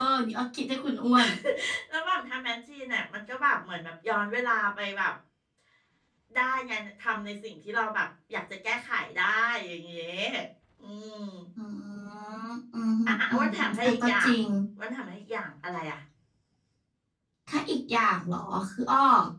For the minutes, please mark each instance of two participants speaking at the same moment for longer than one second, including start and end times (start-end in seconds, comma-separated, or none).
13.1-14.3